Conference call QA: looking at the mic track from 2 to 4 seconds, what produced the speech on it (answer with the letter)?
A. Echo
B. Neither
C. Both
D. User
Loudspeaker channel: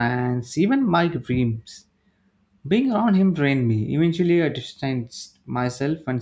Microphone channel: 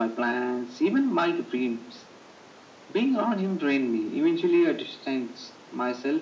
A